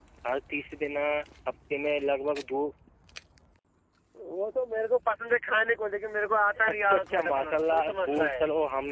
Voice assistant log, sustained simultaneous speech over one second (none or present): present